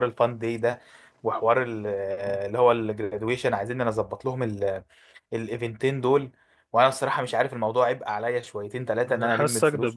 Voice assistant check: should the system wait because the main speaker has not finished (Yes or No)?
No